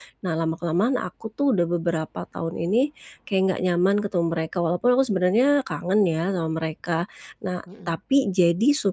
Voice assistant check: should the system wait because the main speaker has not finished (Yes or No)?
Yes